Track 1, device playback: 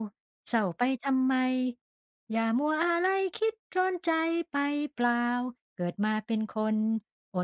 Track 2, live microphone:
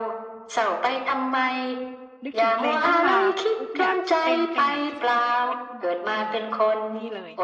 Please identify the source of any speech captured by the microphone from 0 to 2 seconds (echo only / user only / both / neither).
echo only